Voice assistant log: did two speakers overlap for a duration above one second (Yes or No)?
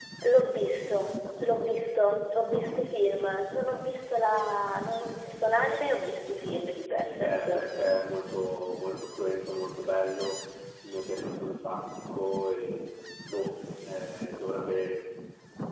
No